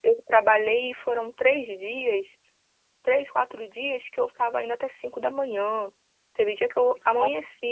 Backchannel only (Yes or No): Yes